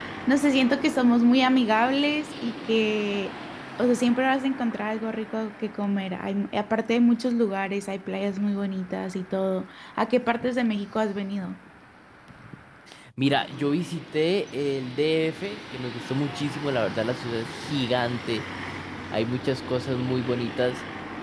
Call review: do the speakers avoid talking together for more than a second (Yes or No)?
Yes